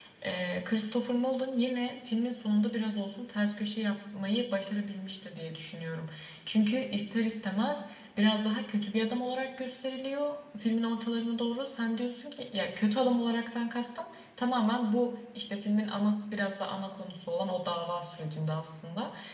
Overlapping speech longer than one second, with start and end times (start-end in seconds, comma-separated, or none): none